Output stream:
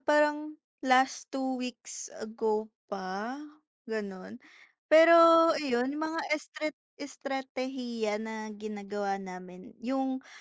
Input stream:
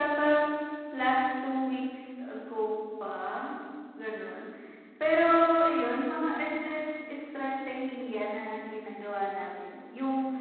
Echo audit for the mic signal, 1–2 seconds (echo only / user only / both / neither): echo only